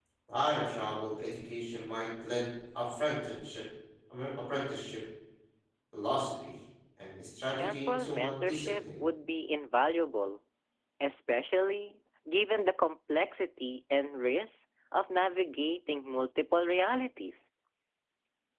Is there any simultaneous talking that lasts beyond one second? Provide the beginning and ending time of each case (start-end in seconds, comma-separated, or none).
7.6-8.8